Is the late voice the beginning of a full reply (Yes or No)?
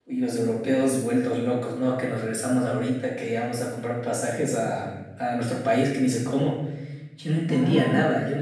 No